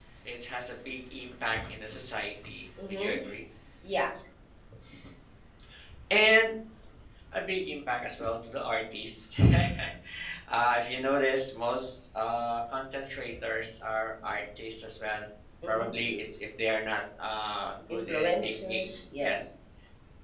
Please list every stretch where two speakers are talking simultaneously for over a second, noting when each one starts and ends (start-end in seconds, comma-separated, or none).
17.9-19.3